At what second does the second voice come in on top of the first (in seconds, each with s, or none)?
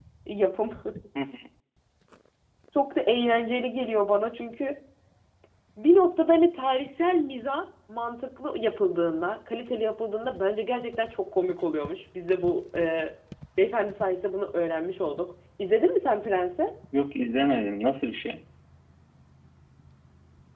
none